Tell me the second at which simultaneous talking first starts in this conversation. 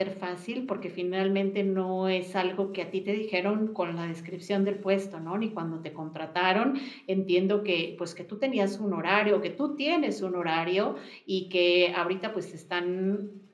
none

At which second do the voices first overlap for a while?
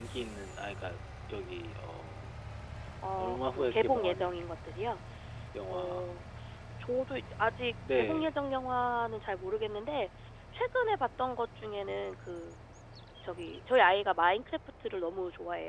3.2 s

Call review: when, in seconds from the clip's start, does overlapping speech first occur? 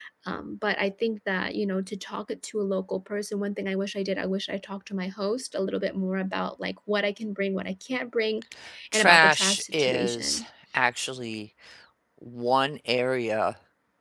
8.9 s

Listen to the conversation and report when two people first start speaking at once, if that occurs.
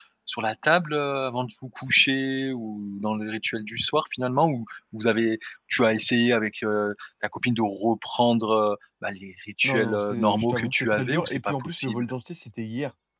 9.6 s

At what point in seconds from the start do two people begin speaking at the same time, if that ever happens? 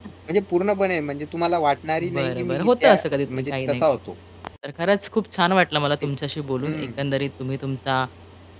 2.1 s

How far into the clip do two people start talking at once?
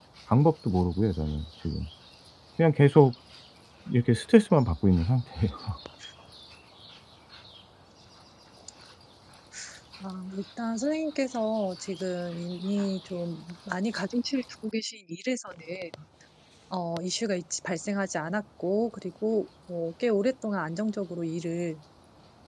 none

